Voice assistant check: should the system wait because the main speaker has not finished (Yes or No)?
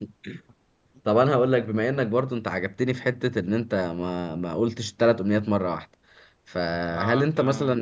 Yes